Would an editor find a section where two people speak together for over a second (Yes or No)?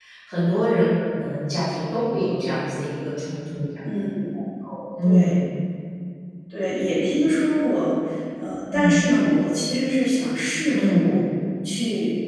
No